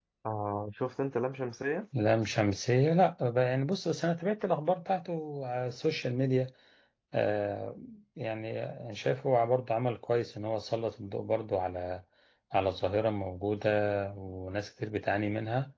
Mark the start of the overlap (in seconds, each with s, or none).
none